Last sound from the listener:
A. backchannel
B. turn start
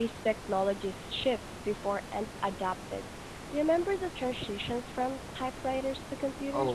B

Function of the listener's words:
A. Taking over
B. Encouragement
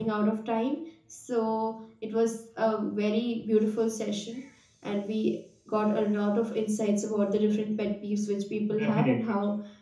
B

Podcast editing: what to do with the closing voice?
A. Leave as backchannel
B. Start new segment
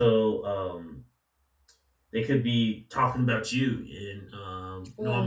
A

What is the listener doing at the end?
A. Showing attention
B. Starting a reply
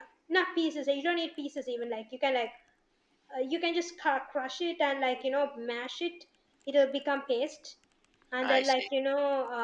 A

